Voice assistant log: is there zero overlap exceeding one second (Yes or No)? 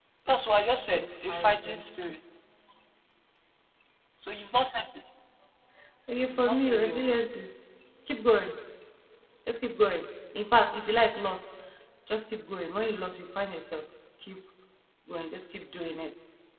No